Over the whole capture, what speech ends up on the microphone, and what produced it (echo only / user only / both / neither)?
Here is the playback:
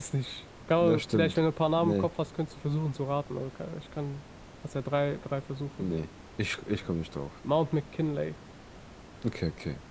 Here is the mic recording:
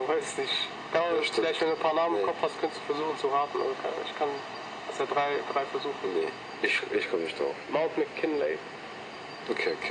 echo only